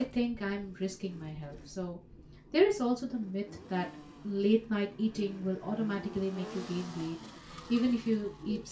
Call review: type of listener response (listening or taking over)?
listening